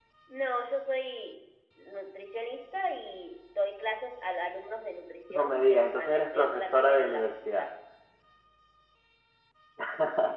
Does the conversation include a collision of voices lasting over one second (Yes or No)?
Yes